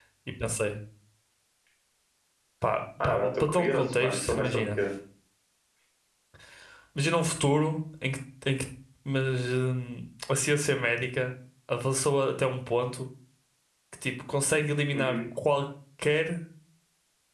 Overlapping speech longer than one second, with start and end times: 3.0-4.7

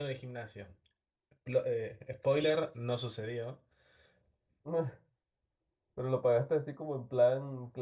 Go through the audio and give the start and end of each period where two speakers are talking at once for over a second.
none

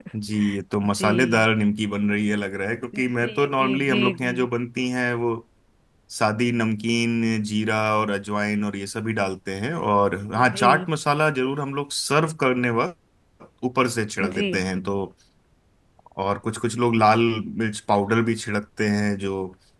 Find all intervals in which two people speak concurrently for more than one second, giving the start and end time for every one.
2.9-4.3

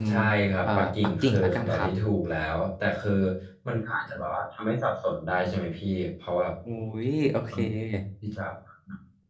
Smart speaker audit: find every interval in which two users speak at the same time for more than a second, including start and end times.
0.6-1.9

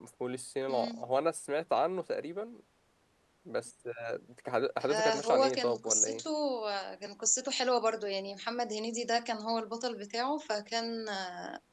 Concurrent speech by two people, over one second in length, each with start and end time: 4.9-6.2

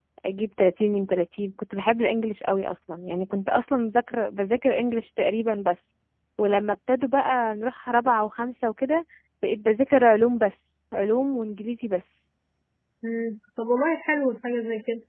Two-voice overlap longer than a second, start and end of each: none

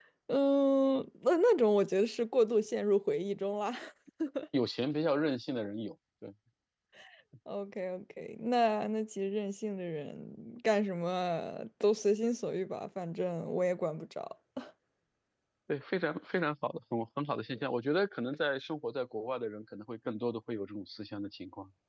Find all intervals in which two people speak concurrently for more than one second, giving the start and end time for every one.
none

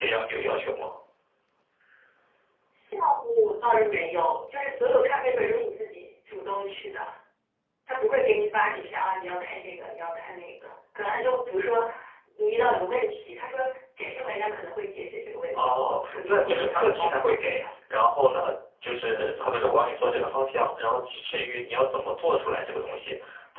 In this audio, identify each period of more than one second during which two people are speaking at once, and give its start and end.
15.5-17.6

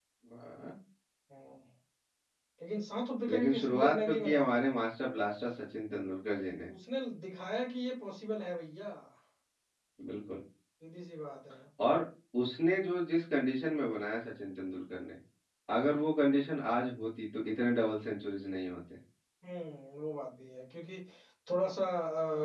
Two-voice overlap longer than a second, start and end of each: 3.3-4.5

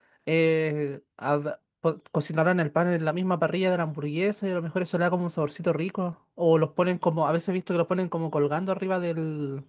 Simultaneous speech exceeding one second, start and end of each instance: none

